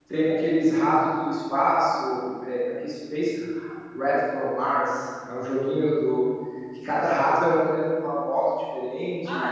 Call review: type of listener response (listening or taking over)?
taking over